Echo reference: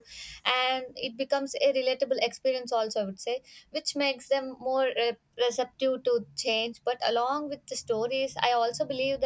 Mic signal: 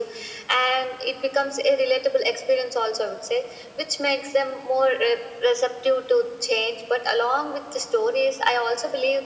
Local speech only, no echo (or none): none